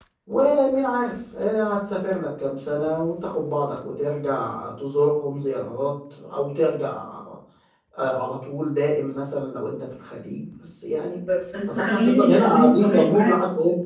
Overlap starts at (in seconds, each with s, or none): 11.7 s